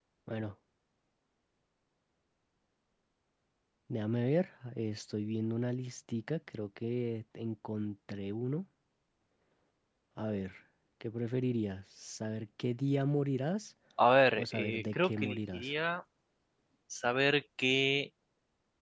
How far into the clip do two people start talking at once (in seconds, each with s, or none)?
14.3 s